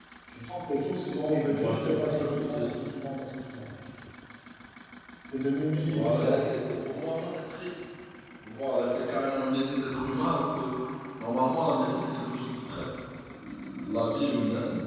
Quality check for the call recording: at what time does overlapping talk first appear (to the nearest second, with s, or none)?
1 s